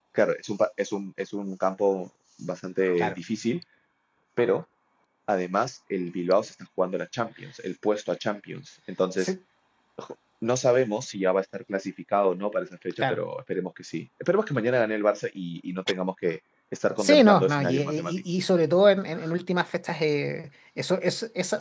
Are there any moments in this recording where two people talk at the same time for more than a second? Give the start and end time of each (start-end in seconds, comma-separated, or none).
17.0-18.2